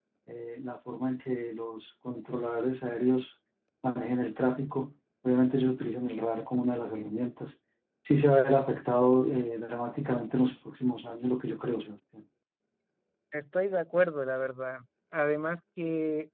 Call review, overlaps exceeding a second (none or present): none